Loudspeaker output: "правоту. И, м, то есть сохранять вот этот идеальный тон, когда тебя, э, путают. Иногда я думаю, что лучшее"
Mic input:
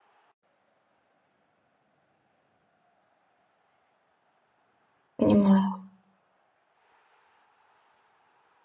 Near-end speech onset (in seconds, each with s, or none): 5.2 s